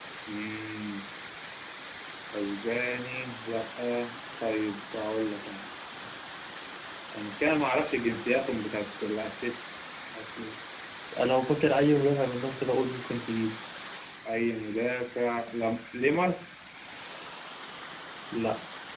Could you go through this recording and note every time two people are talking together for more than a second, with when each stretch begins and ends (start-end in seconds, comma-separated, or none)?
none